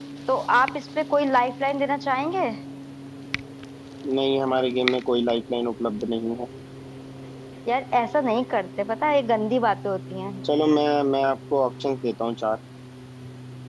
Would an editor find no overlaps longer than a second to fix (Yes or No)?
Yes